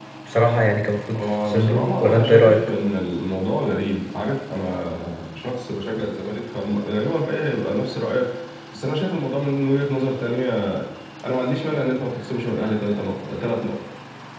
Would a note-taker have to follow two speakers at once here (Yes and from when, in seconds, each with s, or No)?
Yes, from 1.2 s